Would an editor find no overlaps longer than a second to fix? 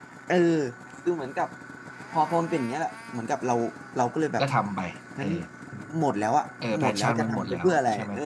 No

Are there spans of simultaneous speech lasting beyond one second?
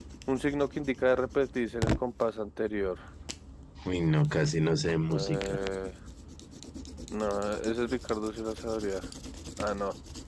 No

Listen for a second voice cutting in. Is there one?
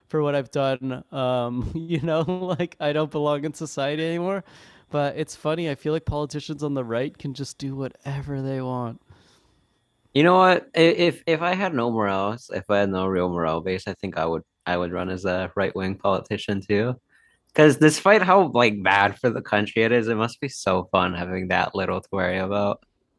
No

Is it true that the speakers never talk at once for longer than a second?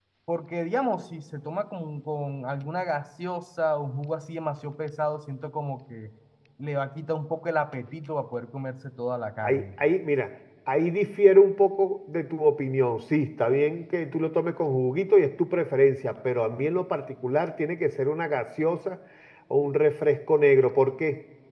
Yes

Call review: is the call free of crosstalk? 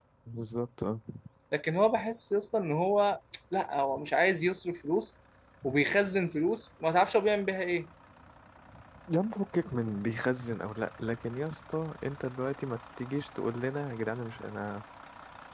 Yes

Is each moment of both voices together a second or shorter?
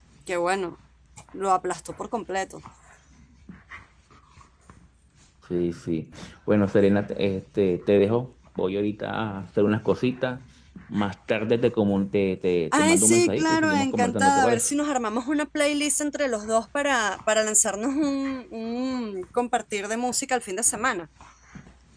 No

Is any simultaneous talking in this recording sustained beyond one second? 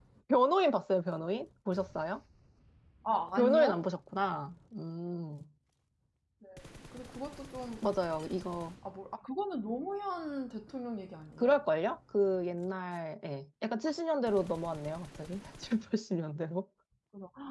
No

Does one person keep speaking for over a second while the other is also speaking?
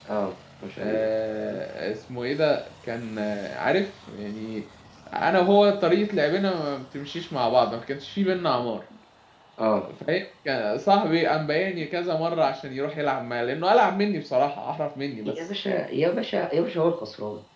No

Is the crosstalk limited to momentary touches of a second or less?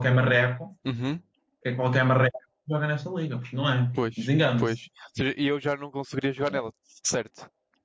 Yes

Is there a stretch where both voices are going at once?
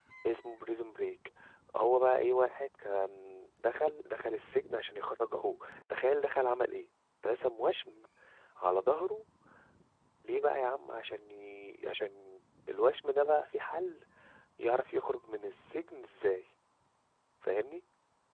No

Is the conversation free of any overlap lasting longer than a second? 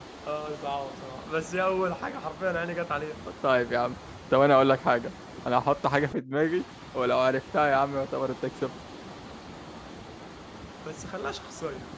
Yes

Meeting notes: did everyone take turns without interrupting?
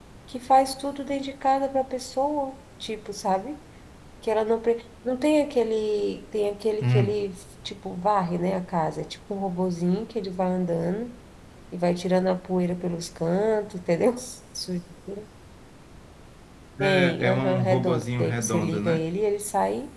No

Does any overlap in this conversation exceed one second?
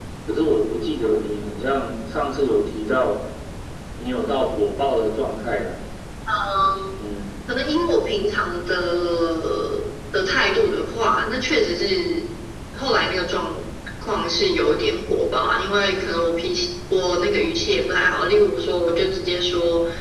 No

